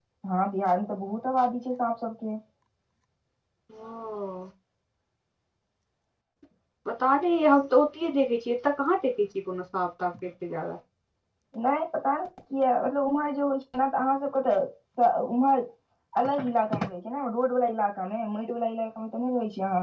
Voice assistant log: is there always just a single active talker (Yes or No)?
Yes